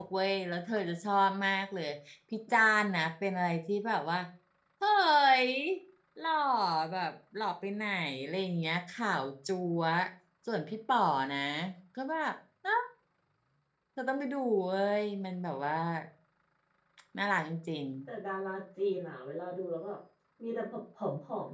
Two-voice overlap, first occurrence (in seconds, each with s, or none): none